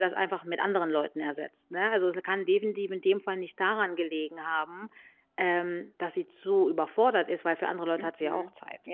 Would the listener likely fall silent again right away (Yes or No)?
No